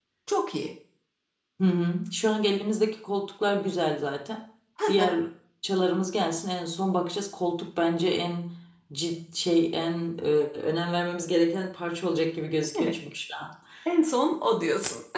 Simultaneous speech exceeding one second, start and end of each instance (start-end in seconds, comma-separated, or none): none